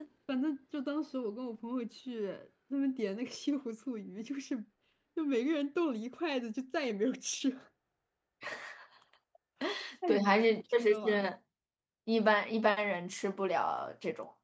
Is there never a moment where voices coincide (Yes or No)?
No